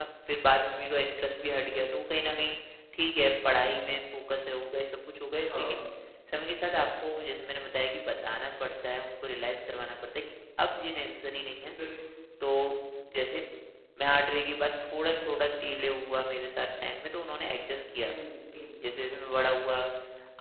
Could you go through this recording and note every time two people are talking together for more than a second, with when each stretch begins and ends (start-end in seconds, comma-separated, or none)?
none